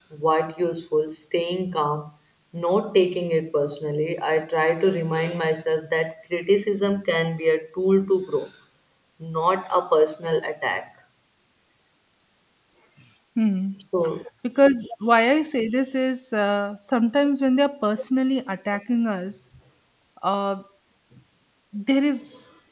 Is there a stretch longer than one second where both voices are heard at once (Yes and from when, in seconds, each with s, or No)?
No